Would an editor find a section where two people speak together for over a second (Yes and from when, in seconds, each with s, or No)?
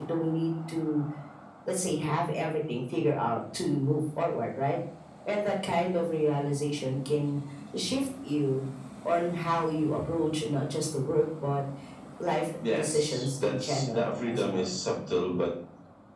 Yes, from 12.6 s